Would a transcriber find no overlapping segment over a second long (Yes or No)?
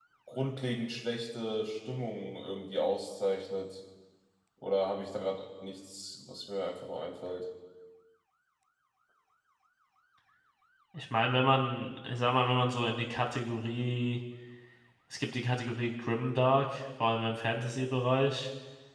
Yes